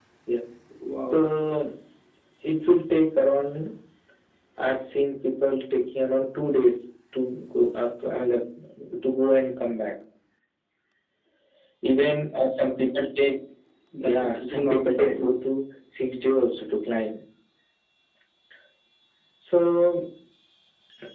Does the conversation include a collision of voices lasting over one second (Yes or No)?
Yes